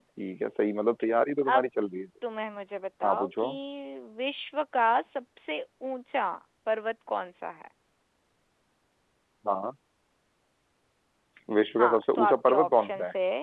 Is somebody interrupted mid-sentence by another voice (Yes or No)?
Yes